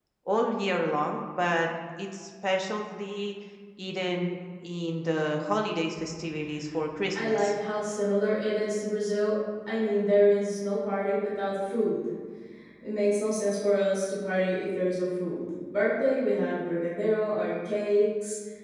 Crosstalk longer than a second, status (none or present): none